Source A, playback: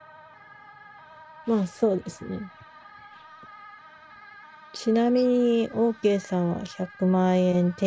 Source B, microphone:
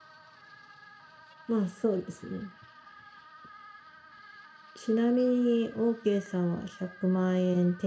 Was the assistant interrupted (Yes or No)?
No